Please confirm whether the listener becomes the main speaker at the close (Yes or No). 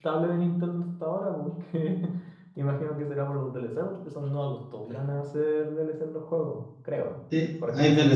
Yes